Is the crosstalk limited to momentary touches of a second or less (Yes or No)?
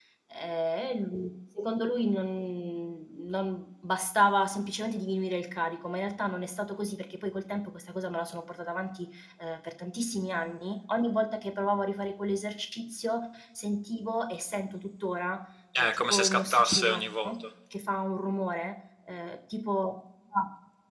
No